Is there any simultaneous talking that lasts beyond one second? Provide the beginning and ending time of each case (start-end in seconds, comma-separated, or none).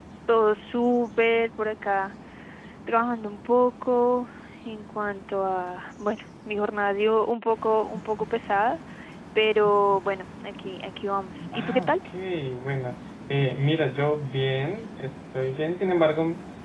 none